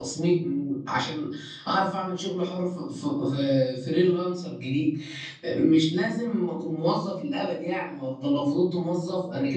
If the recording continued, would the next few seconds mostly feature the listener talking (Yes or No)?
No